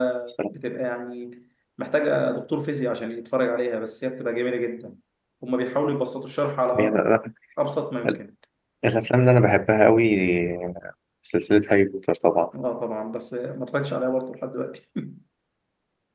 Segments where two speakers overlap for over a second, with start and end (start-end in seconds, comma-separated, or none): none